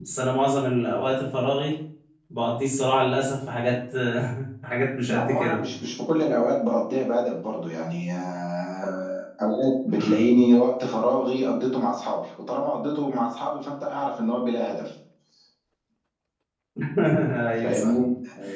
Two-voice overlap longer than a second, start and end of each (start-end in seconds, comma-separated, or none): none